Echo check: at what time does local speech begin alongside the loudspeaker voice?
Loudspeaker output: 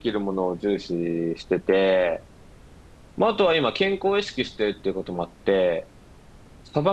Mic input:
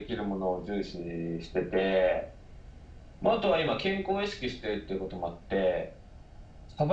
none

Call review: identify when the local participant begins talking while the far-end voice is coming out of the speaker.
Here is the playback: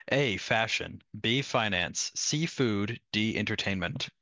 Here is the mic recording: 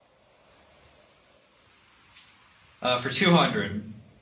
2.8 s

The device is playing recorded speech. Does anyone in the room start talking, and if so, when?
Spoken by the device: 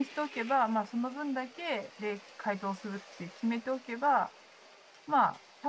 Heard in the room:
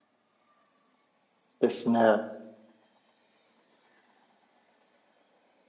1.6 s

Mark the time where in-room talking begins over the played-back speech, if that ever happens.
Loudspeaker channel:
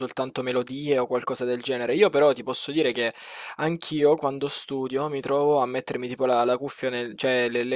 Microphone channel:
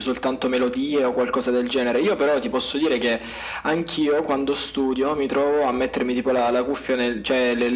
none

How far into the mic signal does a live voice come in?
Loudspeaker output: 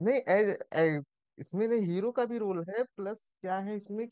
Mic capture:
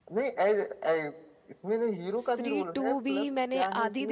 2.2 s

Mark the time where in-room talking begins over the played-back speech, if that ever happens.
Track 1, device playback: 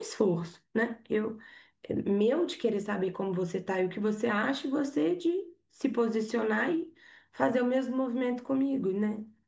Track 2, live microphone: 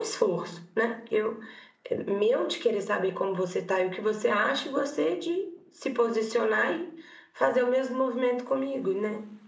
none

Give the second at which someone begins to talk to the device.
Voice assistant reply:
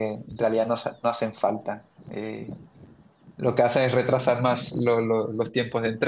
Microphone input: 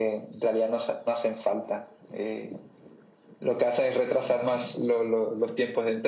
none

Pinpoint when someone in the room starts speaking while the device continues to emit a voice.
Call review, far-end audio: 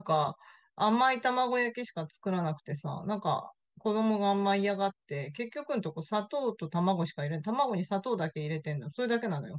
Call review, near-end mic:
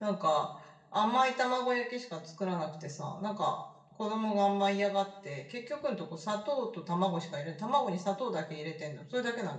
none

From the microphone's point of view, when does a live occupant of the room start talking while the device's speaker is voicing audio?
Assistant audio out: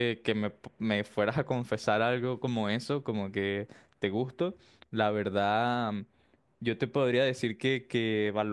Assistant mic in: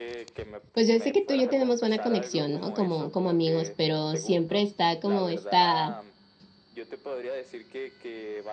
0.7 s

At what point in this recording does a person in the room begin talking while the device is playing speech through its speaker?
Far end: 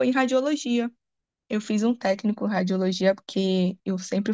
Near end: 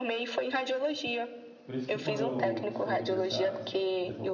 1.6 s

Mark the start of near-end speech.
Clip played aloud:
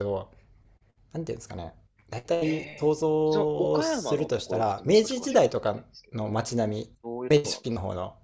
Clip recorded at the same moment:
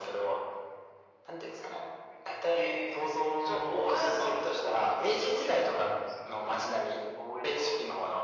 none

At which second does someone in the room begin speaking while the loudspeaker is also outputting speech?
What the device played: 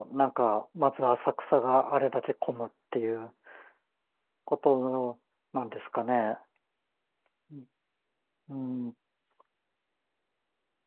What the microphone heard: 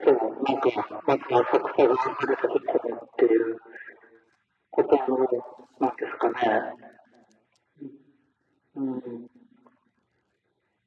none

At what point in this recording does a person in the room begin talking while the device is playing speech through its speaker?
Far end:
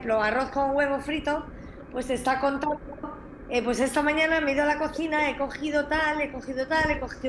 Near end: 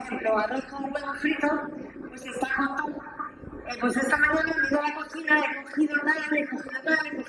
none

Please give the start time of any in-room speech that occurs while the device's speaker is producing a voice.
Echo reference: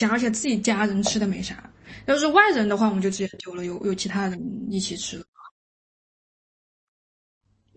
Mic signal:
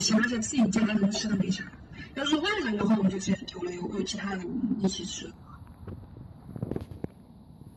none

